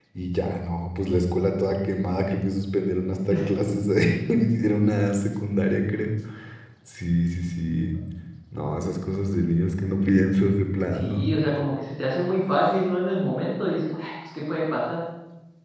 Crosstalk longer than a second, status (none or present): none